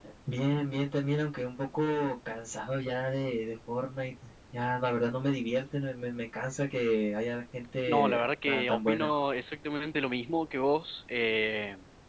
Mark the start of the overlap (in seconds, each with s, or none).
7.9 s